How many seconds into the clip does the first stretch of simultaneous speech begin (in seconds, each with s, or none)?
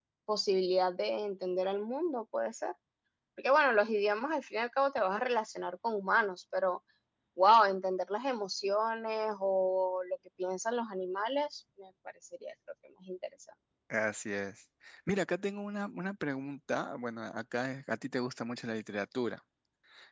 none